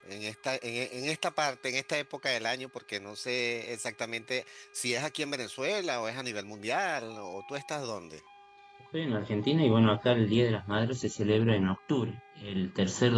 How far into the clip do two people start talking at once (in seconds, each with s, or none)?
none